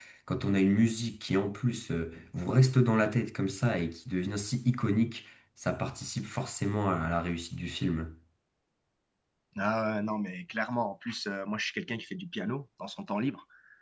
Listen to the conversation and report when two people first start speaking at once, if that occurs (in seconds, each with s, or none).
none